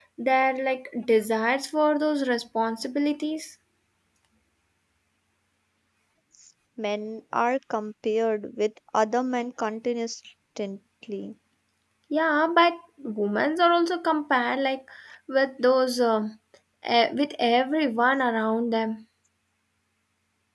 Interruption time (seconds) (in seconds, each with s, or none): none